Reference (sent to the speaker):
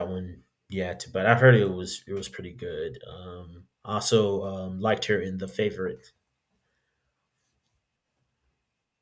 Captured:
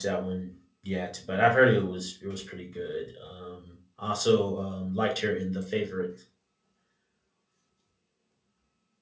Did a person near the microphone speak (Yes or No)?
No